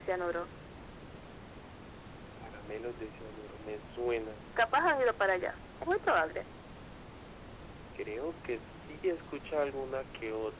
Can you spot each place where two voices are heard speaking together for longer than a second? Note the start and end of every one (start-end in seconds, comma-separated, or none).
none